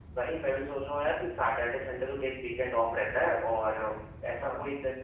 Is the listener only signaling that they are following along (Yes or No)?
Yes